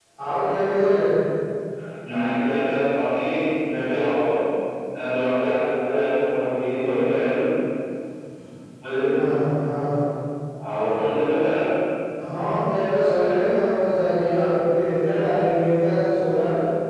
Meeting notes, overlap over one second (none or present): none